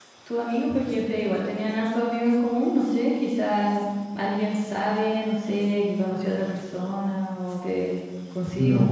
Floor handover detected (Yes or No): Yes